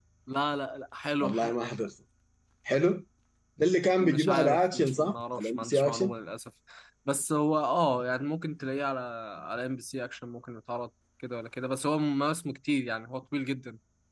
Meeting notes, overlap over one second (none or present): present